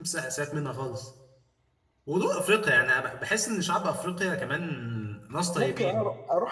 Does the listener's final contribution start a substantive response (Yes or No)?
Yes